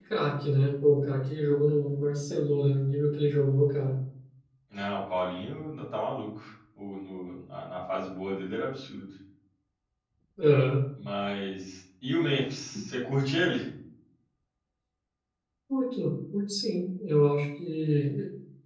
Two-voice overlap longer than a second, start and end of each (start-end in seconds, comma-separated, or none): none